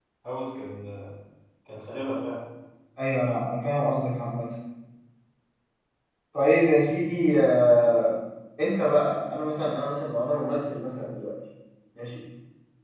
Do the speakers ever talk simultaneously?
No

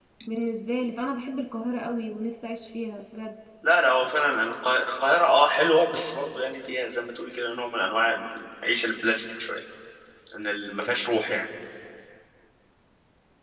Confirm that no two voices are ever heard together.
Yes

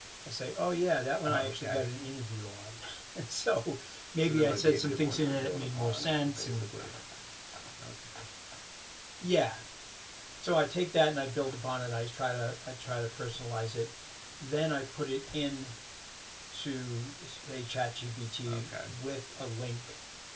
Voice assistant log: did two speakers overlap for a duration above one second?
Yes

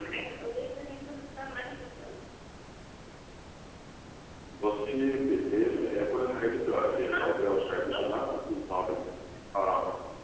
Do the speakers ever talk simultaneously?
Yes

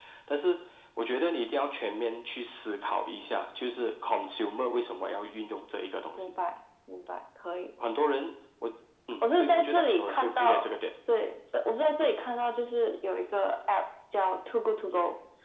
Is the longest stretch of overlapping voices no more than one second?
No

